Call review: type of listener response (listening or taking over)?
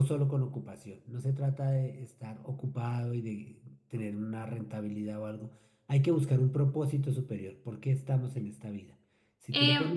listening